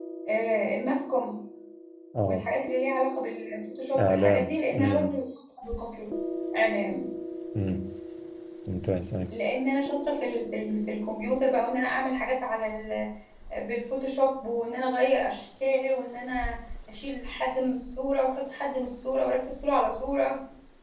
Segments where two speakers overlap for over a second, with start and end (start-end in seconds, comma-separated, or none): 4.0-5.2